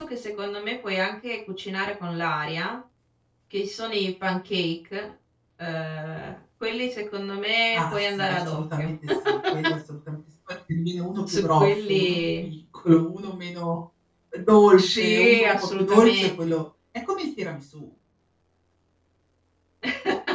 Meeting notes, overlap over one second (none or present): present